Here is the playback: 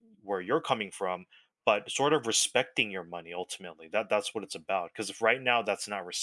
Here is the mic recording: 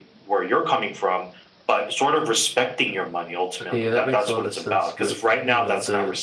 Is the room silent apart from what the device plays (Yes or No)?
No